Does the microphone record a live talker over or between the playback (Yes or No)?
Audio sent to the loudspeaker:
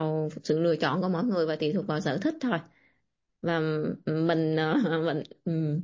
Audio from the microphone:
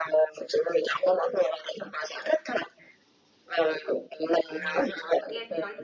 Yes